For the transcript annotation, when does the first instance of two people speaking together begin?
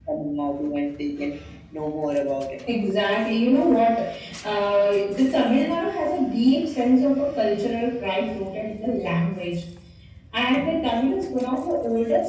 none

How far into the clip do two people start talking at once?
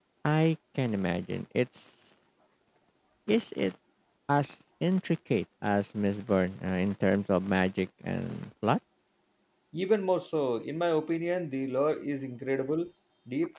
none

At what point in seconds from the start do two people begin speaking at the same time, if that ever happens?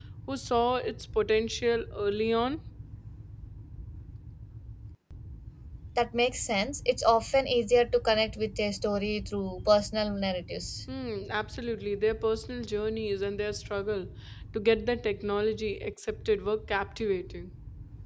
none

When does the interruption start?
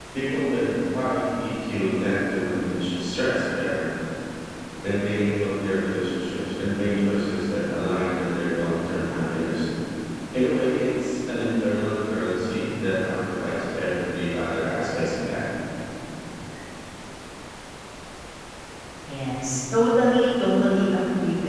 none

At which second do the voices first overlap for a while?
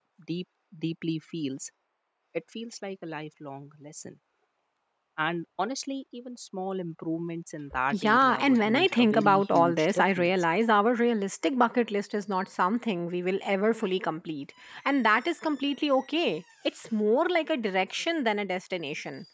7.7 s

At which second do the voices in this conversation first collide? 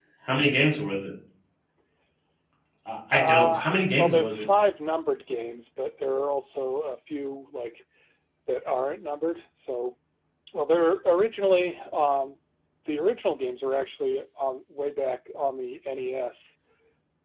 3.1 s

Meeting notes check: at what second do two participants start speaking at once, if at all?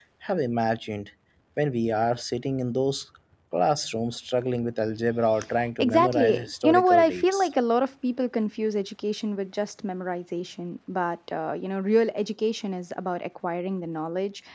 5.8 s

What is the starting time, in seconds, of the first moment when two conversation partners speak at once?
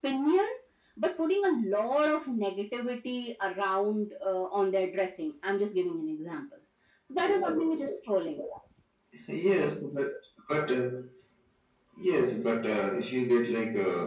none

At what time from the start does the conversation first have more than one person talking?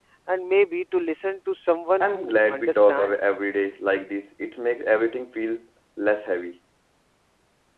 2.0 s

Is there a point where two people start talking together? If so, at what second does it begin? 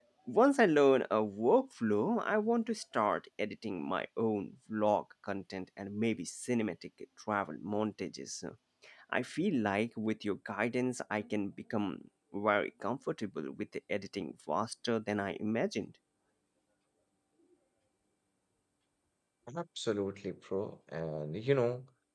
none

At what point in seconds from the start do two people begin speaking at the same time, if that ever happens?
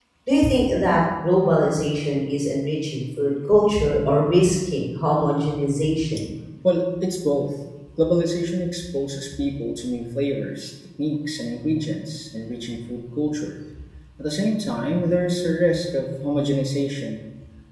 none

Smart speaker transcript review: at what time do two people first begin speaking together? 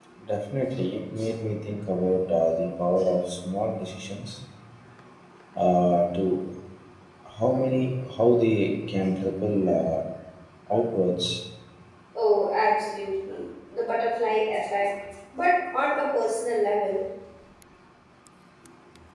none

